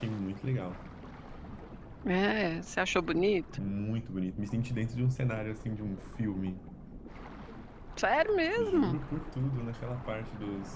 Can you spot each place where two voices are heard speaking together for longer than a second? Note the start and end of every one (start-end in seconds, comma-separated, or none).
none